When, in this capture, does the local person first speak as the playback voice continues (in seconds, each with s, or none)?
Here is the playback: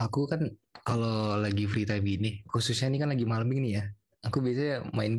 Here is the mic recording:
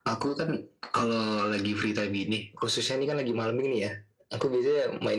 none